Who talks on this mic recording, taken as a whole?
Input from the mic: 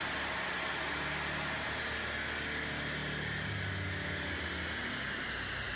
neither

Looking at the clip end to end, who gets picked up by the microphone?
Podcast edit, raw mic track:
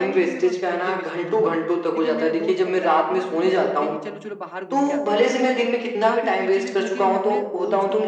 both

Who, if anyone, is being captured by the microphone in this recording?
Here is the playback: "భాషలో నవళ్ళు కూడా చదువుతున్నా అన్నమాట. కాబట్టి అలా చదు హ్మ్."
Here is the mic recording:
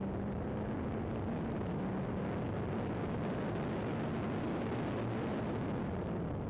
neither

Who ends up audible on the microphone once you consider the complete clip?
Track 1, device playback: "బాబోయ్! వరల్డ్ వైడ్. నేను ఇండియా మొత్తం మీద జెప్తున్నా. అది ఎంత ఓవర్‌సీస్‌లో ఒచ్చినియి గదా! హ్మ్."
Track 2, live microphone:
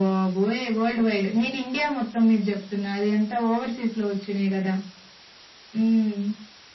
echo only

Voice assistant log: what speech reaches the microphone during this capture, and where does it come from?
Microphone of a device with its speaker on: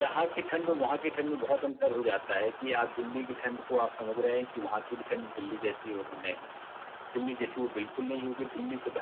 echo only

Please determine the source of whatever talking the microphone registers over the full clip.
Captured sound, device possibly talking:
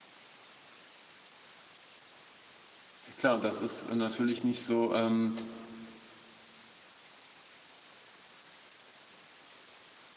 user only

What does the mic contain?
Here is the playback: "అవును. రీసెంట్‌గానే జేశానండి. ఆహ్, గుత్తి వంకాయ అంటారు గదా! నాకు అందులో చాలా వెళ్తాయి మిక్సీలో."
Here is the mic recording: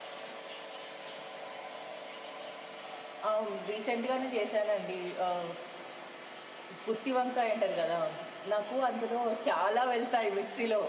echo only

